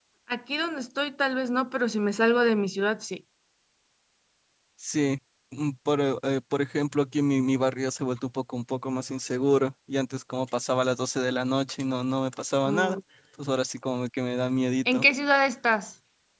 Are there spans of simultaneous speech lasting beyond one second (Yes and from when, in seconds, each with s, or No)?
No